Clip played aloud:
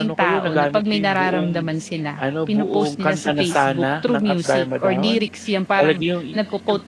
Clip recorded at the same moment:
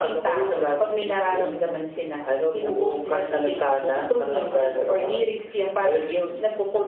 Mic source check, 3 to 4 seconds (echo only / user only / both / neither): echo only